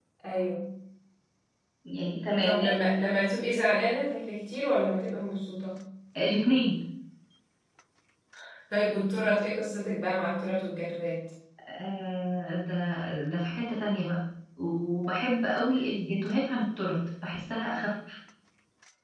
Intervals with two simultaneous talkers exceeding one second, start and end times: none

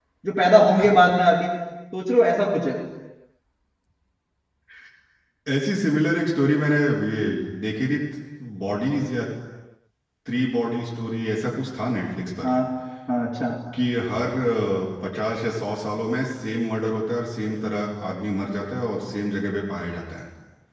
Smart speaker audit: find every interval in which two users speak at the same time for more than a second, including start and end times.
none

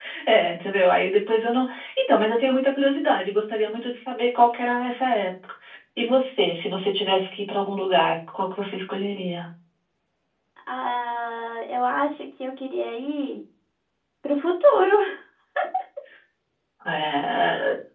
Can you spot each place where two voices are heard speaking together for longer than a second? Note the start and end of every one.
none

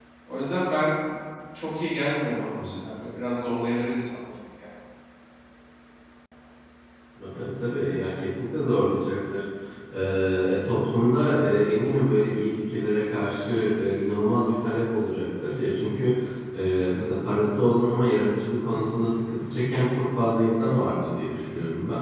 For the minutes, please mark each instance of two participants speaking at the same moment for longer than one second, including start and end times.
none

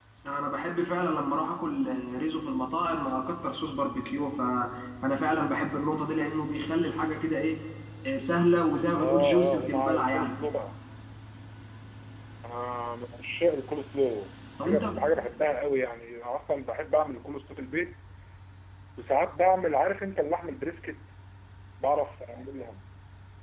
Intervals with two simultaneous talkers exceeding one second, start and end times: 9.0-10.4

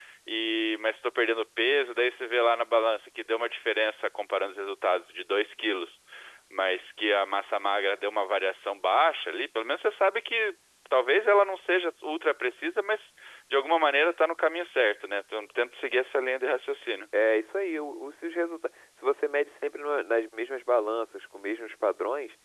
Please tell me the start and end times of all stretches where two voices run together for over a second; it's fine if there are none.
none

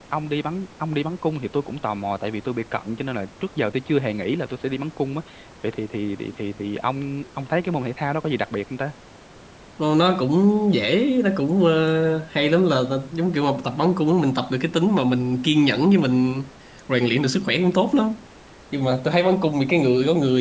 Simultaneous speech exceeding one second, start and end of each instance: none

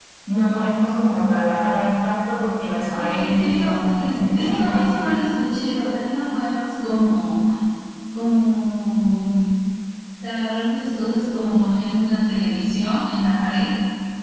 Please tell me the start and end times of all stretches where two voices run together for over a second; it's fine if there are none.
3.0-4.9

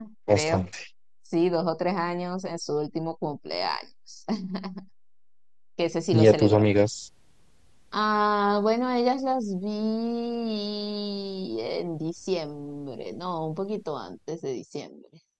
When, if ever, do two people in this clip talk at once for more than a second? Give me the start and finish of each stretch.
none

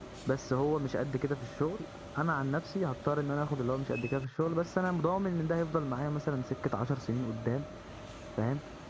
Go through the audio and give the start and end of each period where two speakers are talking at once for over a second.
none

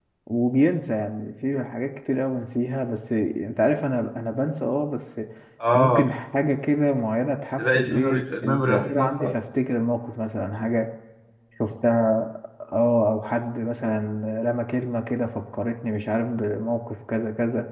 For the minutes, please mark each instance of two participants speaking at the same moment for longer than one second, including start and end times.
7.6-9.4

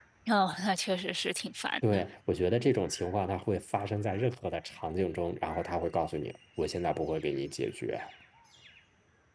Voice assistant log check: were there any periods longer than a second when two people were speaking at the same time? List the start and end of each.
none

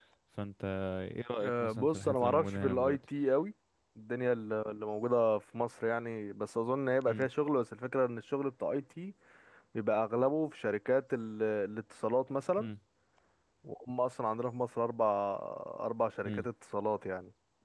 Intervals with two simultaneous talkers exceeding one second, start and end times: 1.4-3.0

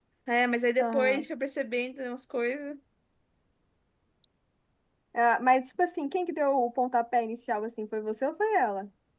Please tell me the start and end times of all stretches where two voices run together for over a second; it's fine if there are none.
none

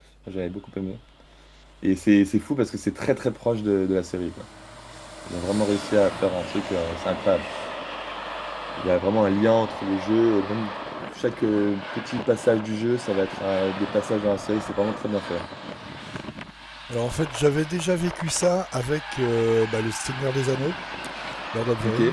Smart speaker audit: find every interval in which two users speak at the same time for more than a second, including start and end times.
none

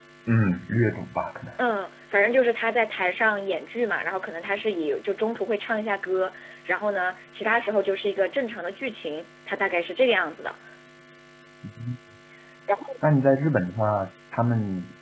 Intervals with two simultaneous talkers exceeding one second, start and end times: none

